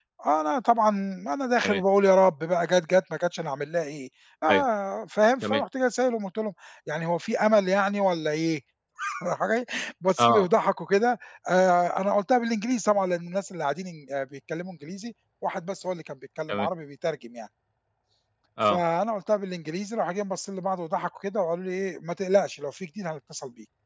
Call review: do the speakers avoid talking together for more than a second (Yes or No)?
Yes